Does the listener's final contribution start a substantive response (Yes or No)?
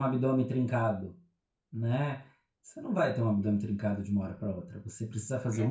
No